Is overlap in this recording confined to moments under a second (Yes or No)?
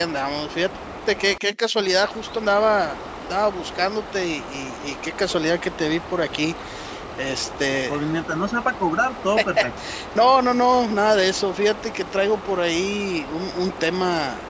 Yes